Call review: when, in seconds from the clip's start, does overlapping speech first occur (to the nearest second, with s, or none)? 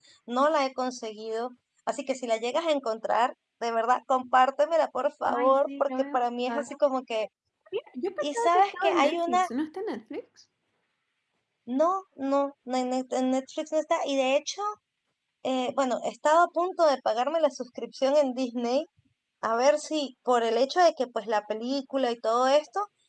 5 s